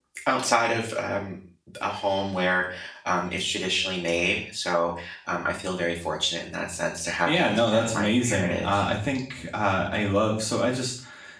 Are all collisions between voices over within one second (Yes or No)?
No